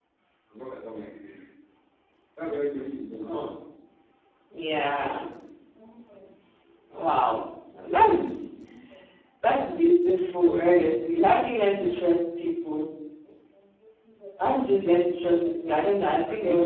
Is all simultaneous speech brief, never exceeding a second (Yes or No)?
Yes